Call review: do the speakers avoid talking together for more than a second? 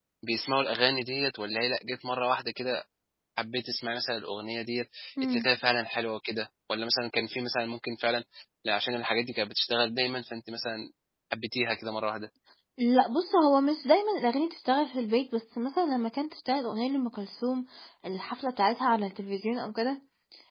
Yes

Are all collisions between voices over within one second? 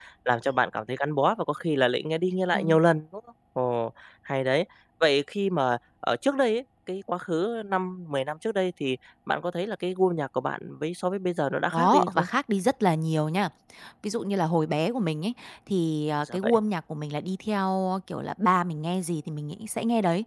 Yes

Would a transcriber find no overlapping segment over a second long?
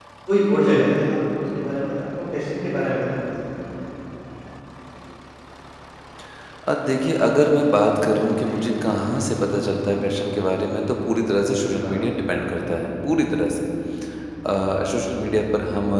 Yes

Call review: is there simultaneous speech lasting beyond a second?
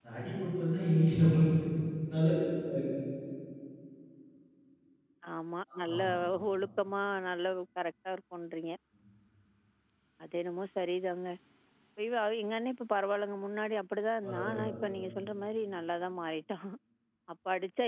No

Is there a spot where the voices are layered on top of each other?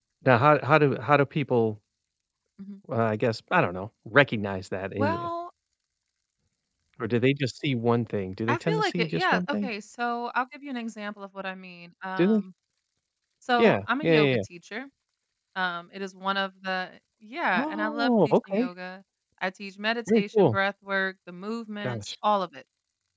Yes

